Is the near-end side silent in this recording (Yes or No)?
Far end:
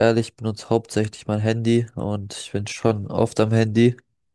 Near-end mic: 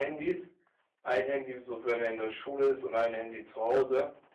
No